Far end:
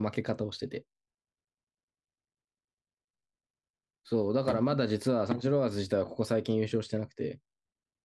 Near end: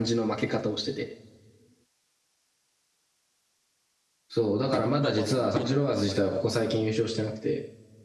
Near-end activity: present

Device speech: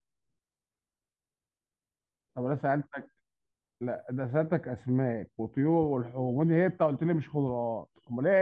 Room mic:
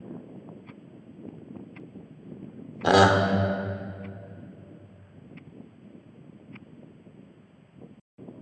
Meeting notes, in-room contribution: present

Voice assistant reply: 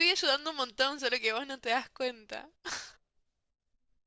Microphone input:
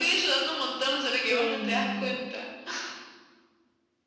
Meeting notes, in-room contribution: present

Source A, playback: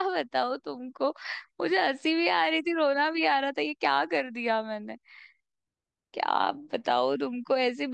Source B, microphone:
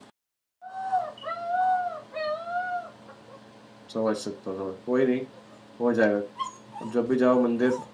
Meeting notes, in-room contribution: present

